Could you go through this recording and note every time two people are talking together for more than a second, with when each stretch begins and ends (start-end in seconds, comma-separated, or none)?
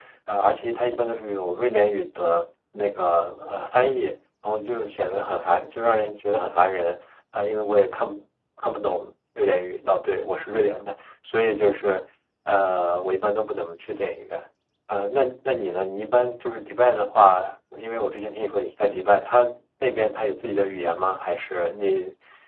none